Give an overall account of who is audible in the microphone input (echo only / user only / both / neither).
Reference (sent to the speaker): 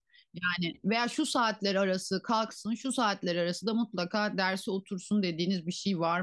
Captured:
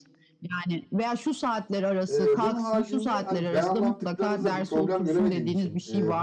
both